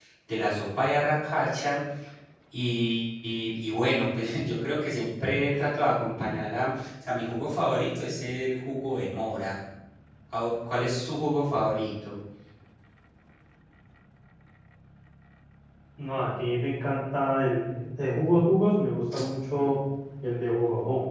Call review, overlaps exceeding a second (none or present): none